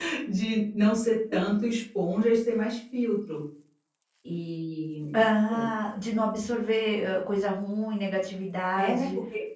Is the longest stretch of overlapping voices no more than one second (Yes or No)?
Yes